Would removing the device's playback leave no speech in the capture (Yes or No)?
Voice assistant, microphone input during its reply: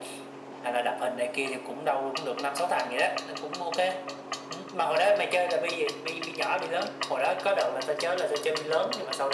Yes